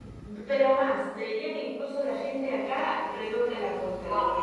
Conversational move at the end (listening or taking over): listening